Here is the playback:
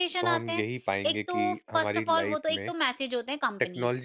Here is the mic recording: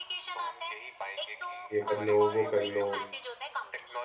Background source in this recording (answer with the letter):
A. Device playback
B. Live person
A